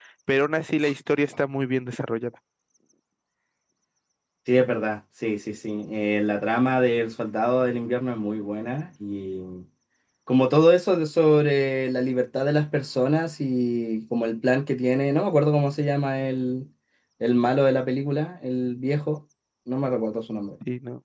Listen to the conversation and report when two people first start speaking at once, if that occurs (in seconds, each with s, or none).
none